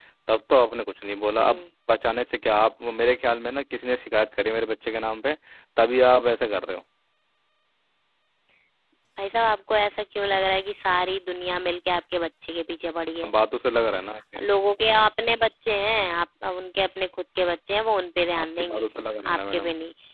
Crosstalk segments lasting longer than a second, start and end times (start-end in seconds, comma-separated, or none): none